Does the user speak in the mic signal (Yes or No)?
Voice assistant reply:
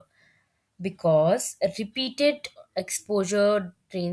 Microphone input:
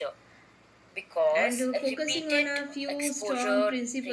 Yes